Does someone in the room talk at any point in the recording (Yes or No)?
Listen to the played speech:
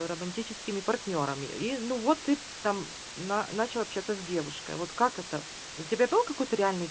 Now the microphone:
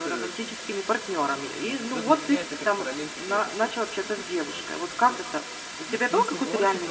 Yes